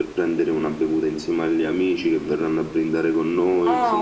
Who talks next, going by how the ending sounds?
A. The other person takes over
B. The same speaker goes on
A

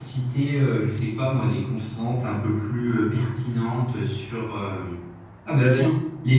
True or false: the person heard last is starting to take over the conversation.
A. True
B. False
B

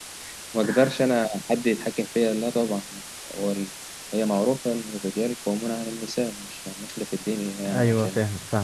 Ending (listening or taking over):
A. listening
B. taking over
B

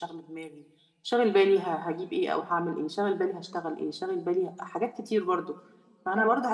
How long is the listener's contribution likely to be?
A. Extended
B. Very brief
B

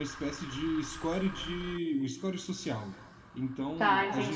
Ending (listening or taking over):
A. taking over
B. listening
B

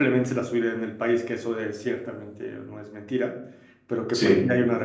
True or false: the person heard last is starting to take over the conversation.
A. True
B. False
B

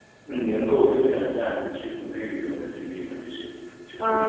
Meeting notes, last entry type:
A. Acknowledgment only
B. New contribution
B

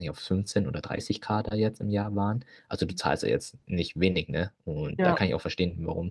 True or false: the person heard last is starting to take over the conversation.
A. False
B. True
A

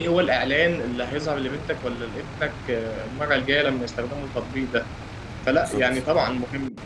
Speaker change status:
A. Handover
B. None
B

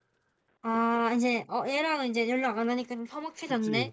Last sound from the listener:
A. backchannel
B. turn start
B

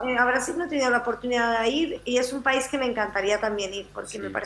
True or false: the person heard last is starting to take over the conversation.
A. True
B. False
B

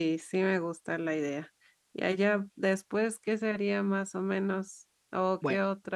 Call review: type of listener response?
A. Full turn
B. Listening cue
B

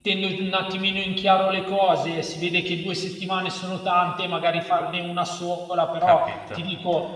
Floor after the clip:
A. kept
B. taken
A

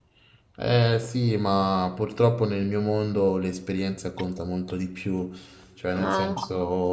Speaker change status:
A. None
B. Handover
A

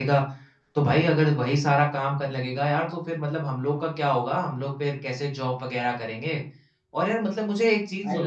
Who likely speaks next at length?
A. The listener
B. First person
B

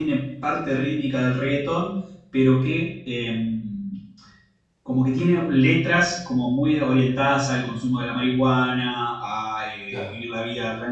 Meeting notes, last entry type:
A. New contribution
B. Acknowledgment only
B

